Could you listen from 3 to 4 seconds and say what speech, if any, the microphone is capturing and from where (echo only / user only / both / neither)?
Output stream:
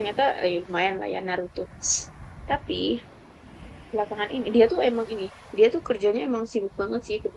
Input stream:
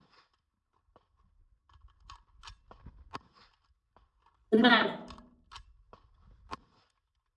neither